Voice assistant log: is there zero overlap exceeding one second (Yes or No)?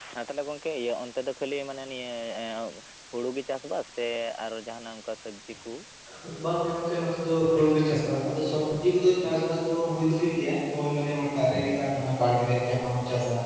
Yes